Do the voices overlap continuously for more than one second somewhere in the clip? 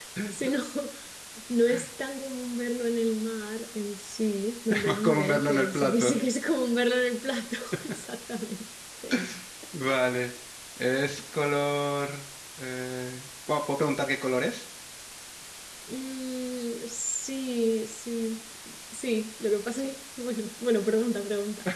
Yes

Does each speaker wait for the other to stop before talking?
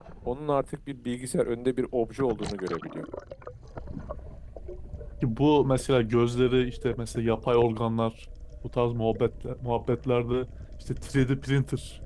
Yes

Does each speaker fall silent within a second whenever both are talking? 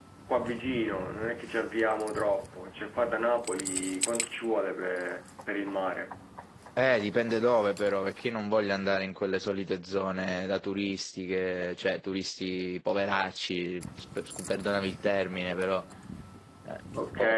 Yes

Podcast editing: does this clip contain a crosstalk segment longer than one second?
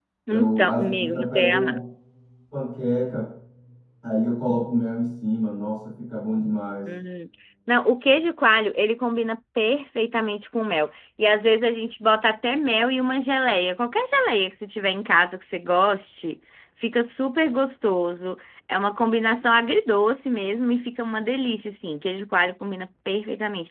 Yes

